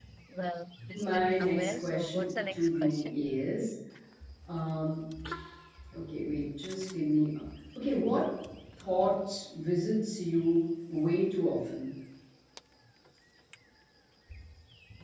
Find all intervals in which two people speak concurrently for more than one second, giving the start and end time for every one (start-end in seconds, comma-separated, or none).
0.9-3.3